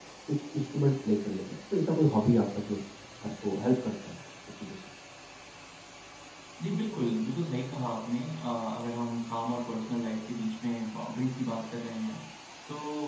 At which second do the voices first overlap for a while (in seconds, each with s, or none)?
none